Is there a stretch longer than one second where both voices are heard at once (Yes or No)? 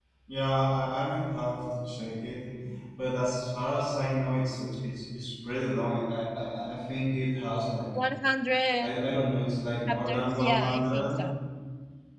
Yes